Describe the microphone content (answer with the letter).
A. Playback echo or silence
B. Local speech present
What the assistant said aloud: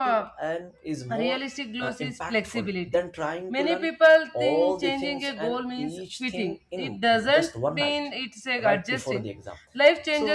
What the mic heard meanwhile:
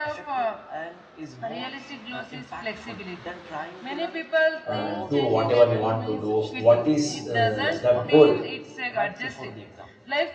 B